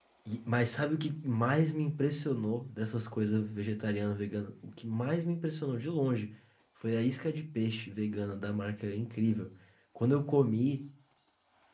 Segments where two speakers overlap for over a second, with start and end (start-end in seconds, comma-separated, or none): none